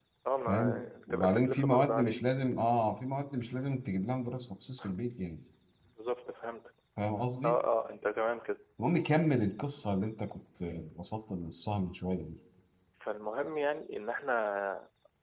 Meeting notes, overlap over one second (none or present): present